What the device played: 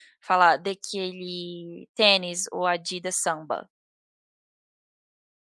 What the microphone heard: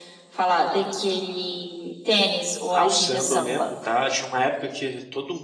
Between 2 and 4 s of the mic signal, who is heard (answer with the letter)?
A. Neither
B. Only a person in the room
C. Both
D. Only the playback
C